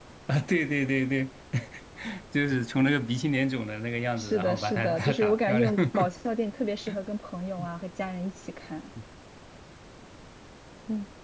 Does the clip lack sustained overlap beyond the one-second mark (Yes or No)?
No